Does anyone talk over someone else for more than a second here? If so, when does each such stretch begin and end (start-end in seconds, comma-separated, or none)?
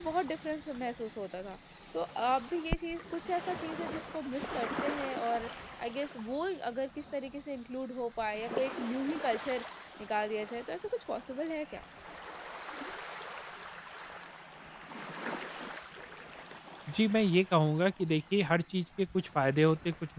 none